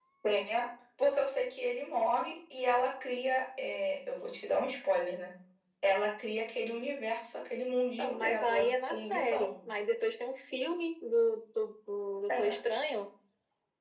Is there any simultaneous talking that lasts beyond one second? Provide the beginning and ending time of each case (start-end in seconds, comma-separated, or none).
8.0-9.5